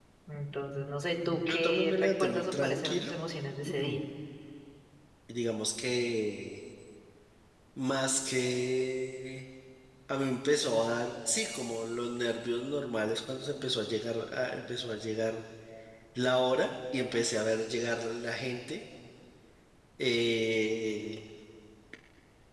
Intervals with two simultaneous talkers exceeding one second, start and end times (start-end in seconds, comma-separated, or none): 1.3-3.1